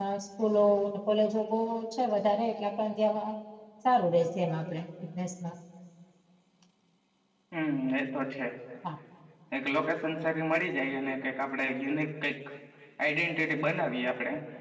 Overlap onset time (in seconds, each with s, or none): none